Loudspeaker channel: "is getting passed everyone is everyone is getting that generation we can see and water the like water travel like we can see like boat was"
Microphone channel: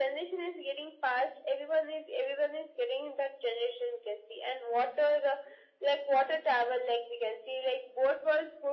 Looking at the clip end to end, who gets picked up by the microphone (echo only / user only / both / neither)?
echo only